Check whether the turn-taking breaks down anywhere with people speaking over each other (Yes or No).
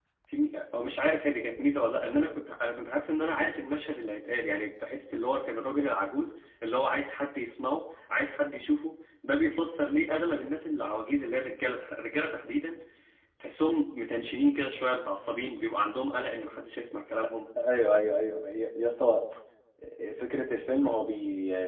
No